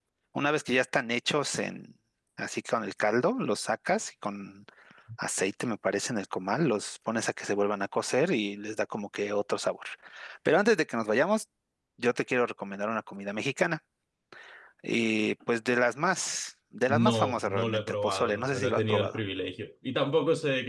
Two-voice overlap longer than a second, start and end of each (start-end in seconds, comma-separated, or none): 16.9-19.2